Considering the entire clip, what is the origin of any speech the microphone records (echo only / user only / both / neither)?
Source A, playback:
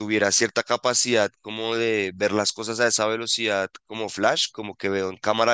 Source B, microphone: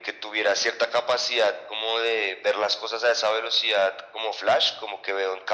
echo only